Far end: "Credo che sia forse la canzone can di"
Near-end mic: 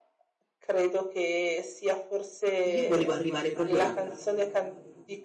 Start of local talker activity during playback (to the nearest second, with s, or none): 3 s